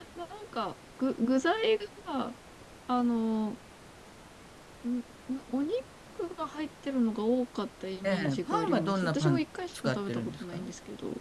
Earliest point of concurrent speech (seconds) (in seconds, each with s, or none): 8.0 s